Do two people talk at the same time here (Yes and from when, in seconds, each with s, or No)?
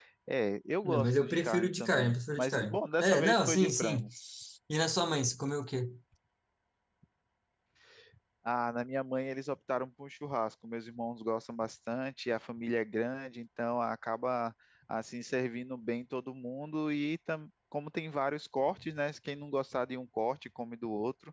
Yes, from 0.8 s